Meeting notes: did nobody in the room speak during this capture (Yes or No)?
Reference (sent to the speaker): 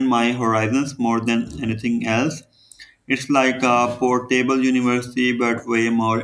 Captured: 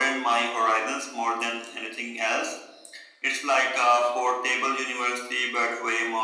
Yes